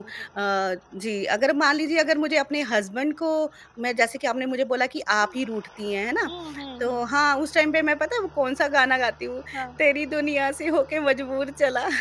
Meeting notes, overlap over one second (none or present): none